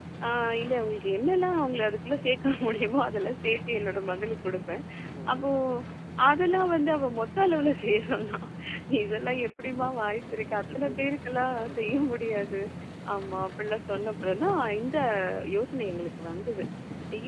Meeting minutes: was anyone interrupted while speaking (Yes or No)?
Yes